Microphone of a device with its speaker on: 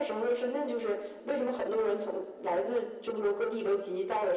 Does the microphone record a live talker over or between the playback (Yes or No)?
No